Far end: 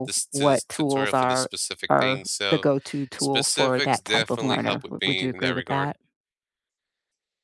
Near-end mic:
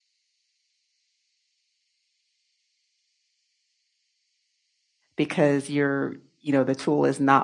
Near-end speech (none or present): present